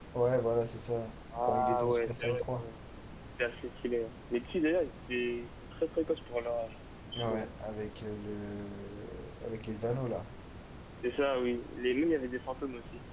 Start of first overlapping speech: 1.4 s

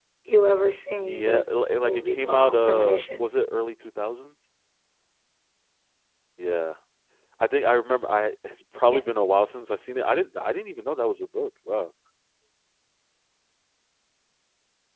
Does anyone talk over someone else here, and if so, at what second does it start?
1.0 s

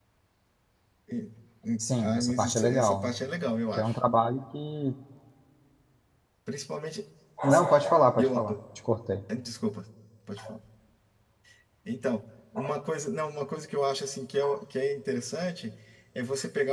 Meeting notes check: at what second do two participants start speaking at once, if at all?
1.8 s

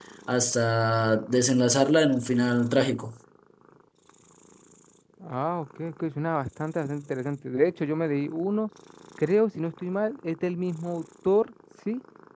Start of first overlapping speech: none

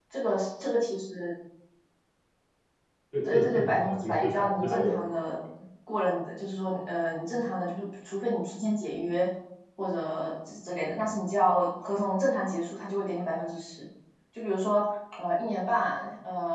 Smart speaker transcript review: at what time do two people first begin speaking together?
3.2 s

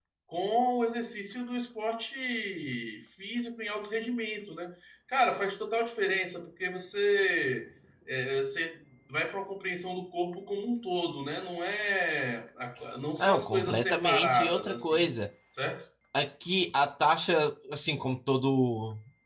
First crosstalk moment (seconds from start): 13.2 s

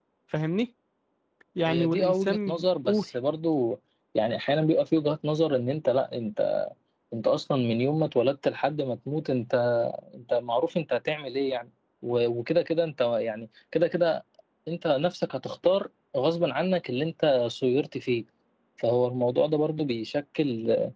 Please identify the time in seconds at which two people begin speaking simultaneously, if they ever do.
1.7 s

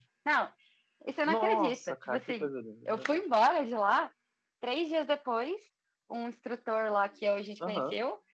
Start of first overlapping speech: 1.2 s

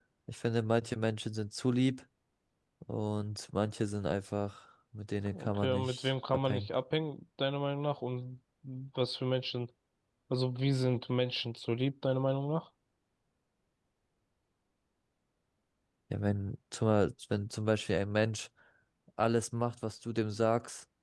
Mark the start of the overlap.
5.3 s

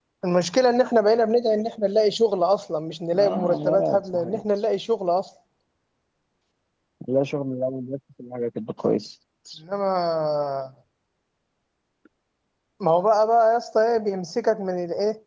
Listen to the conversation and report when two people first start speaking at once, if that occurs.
3.1 s

